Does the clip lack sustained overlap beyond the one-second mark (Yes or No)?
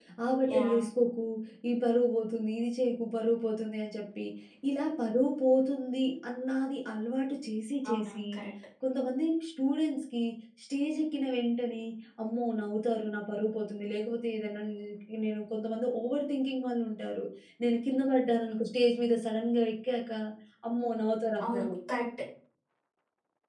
Yes